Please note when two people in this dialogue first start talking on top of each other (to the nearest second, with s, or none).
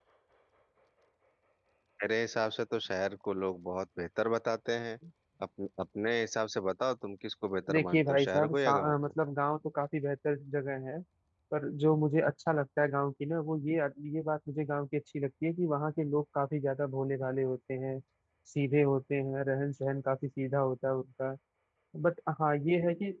8 s